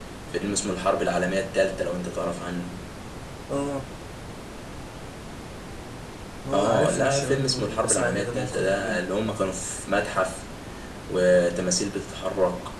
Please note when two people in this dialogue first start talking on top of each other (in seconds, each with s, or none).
6.5 s